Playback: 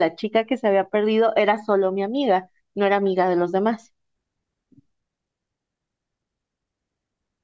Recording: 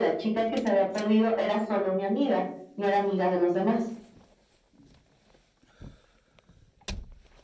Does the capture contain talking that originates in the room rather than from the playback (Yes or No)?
No